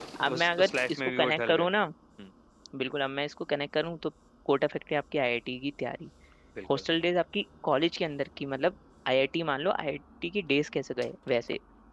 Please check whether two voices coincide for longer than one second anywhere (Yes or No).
Yes